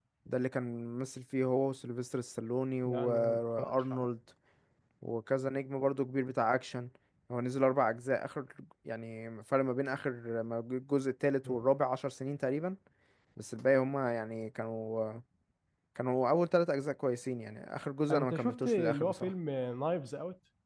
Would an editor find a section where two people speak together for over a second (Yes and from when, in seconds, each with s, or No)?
Yes, from 2.8 s